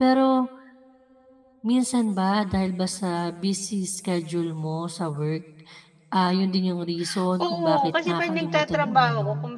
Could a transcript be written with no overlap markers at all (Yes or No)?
No